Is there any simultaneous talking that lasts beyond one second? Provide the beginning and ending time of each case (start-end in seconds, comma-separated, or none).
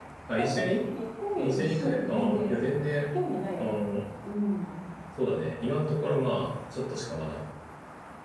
1.4-2.7